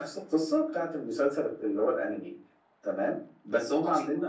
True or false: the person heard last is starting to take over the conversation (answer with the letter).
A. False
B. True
A